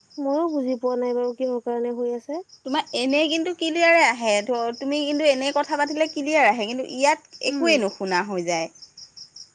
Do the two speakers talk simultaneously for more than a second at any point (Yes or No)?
No